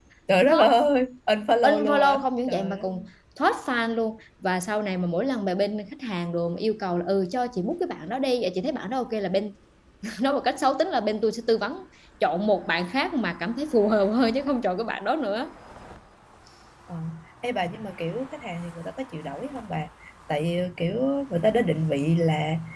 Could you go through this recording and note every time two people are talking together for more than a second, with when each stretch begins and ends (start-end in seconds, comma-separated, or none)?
1.6-2.9